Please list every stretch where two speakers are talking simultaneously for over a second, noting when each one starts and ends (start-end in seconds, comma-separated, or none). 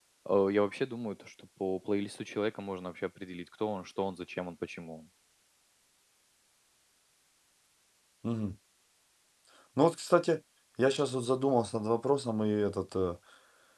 none